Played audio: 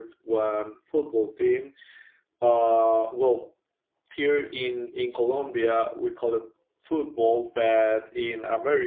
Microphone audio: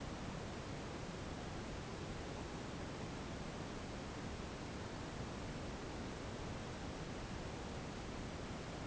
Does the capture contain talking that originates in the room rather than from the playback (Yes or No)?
No